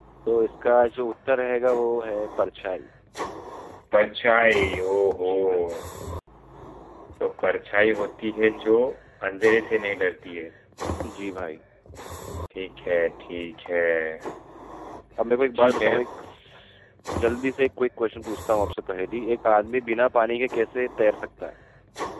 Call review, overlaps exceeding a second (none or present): none